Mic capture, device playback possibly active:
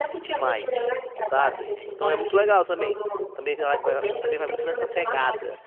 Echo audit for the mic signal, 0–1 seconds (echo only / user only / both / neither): both